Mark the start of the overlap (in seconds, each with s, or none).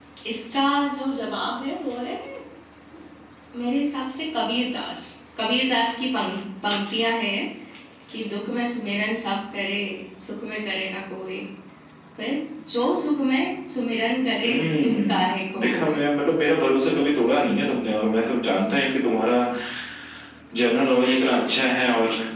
14.4 s